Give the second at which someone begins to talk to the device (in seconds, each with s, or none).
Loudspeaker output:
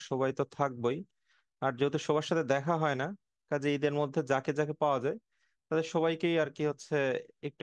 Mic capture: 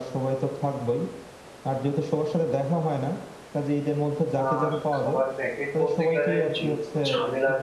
4.4 s